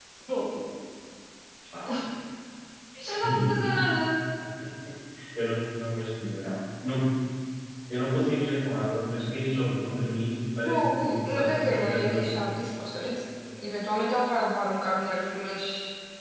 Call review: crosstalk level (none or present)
present